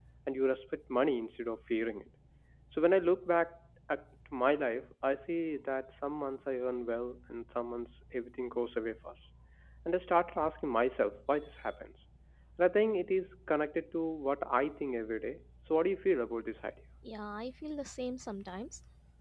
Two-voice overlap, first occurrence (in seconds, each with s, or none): none